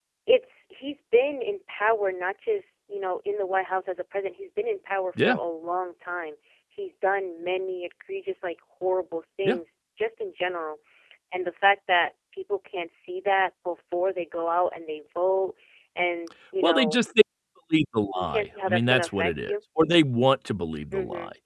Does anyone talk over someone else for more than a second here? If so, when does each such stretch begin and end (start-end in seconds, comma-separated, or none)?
18.1-19.6